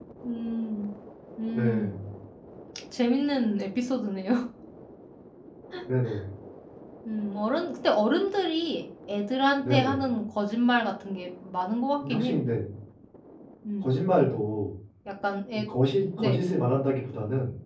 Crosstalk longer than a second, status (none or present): none